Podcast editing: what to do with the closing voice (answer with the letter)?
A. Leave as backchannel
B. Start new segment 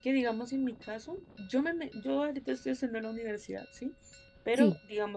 A